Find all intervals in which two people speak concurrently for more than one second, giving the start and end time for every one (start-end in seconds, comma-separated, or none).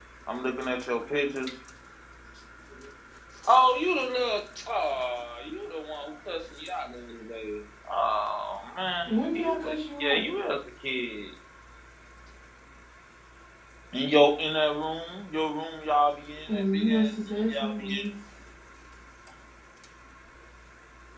9.1-10.3, 16.5-18.1